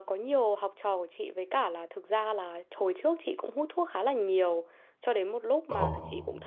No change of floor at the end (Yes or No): Yes